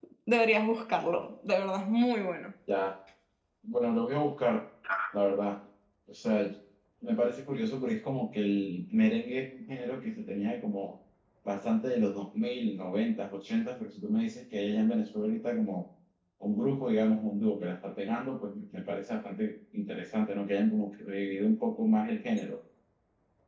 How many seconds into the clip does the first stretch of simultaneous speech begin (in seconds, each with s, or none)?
none